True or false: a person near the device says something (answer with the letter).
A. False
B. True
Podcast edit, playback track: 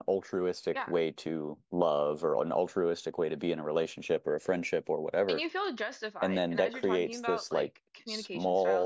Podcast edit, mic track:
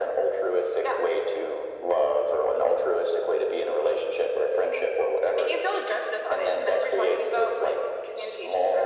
A